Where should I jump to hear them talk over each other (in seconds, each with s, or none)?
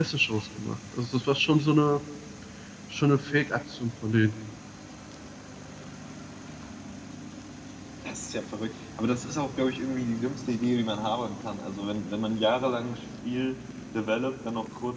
none